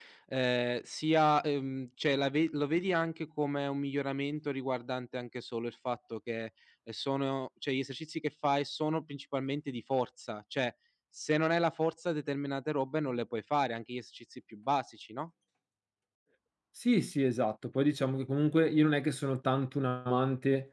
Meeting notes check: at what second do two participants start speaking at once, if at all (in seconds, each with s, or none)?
none